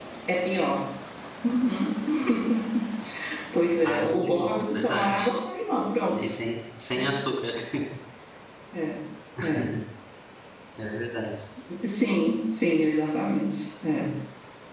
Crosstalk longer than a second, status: present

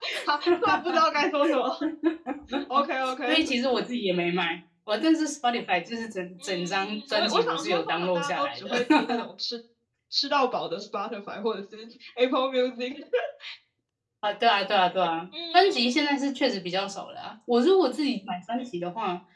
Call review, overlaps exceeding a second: present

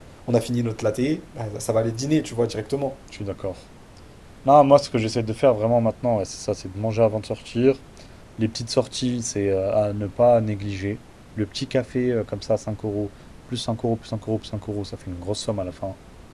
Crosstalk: none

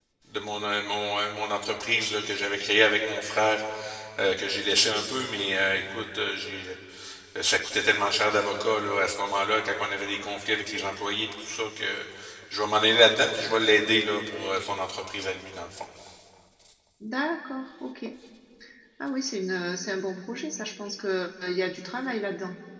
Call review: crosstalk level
none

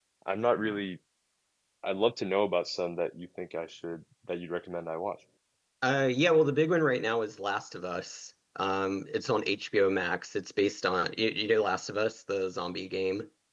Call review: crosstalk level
none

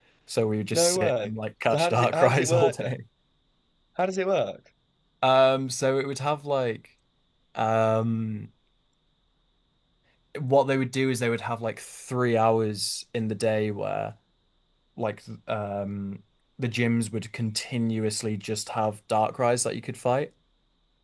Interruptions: present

